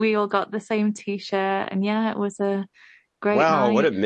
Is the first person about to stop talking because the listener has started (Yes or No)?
Yes